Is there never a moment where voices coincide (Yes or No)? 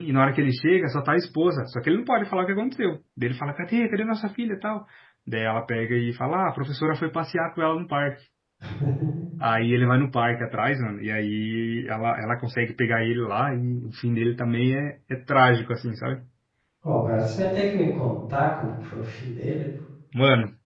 Yes